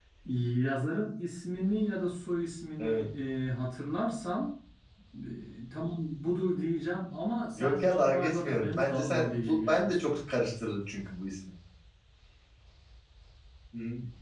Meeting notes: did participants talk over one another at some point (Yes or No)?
Yes